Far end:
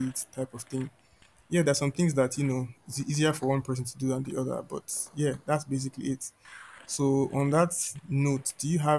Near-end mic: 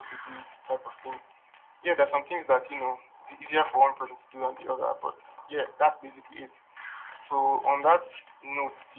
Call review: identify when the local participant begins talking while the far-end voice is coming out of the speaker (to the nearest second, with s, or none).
none